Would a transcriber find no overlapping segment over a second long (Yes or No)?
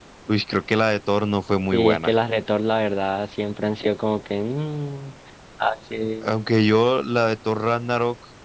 Yes